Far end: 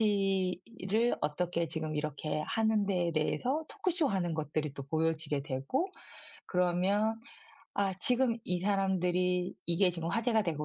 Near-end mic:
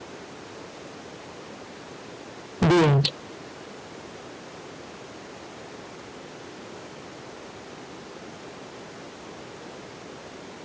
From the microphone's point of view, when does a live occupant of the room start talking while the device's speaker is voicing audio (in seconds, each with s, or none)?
2.6 s